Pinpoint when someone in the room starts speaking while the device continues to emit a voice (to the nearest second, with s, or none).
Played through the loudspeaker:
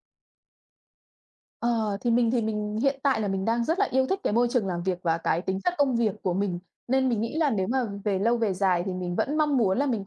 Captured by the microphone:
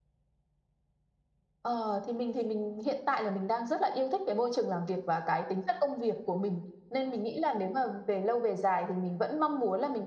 none